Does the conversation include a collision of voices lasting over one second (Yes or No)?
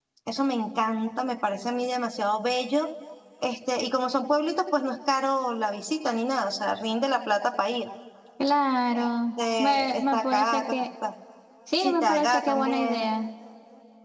Yes